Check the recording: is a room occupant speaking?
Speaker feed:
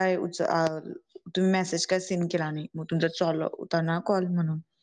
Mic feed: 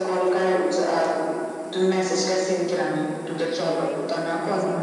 Yes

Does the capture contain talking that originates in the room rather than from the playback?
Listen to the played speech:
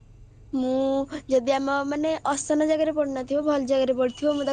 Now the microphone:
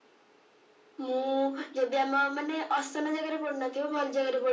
No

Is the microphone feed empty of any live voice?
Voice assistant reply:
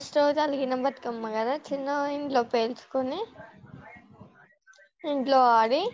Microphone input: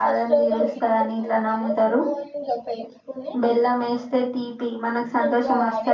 No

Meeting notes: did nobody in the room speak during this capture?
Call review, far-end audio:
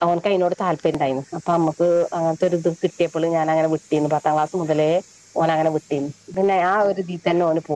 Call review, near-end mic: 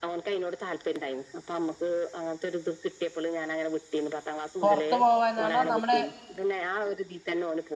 No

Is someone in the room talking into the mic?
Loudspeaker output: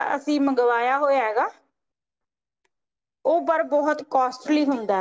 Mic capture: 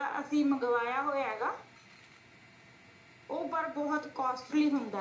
No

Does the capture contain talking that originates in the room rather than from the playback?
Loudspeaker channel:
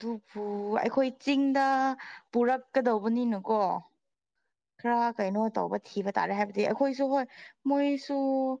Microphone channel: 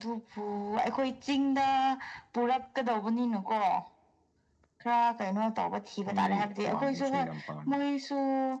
Yes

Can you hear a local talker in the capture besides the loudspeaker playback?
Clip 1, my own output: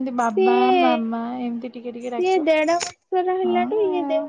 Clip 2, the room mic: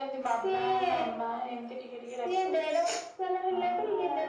No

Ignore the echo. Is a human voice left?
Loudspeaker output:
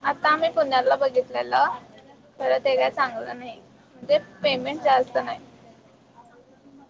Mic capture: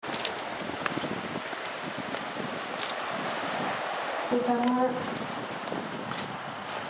Yes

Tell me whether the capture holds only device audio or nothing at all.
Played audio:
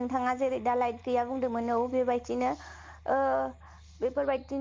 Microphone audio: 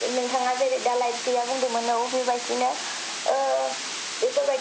Yes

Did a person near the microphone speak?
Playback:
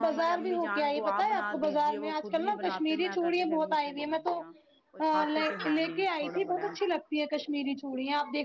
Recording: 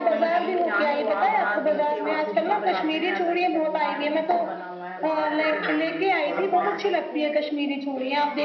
Yes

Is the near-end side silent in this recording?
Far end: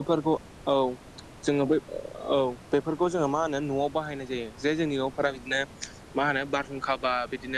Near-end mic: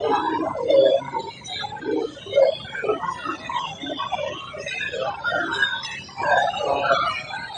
Yes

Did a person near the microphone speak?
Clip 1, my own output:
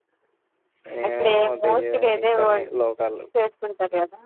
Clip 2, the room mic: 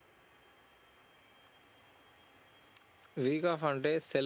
Yes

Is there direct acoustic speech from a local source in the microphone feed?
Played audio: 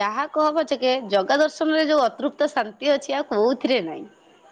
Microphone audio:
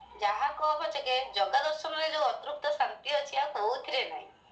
No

